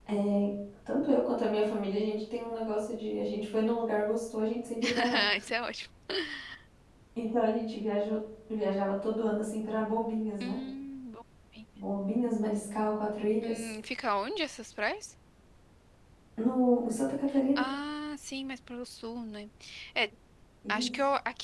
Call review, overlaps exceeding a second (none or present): none